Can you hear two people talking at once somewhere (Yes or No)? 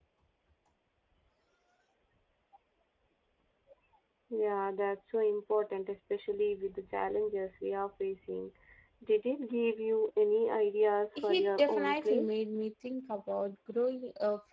Yes